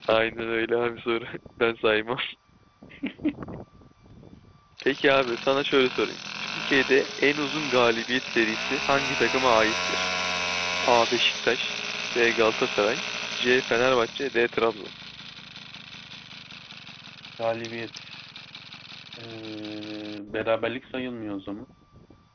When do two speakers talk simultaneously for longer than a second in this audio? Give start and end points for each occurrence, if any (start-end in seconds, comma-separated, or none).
none